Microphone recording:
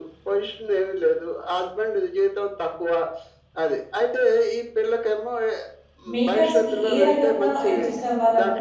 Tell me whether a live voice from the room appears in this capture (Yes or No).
Yes